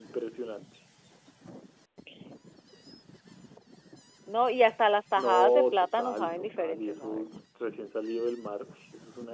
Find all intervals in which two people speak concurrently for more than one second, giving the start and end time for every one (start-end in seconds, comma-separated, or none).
5.2-7.2